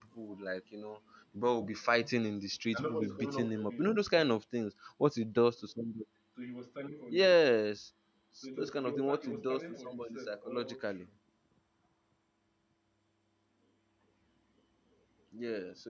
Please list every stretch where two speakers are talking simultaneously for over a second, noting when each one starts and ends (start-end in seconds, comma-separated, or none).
2.7-4.0, 8.6-11.1